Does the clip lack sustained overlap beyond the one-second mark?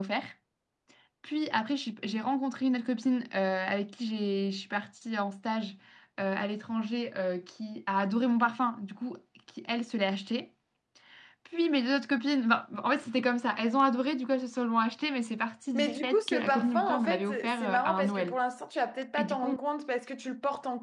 No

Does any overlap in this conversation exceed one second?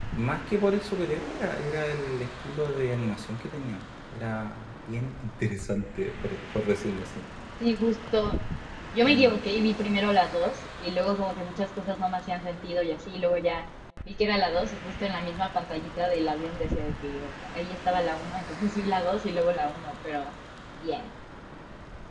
No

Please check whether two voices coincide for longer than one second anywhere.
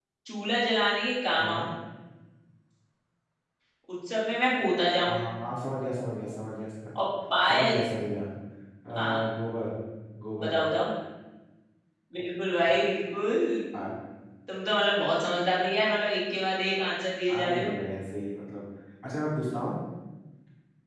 No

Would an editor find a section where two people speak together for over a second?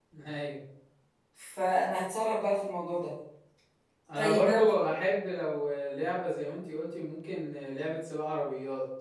No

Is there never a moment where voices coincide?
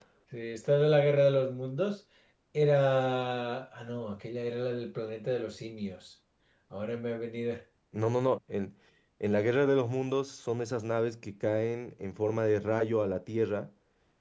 Yes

